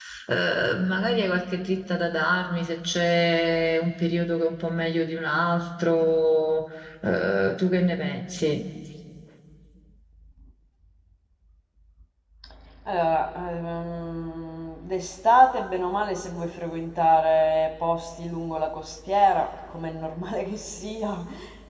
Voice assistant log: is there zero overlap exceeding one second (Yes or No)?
Yes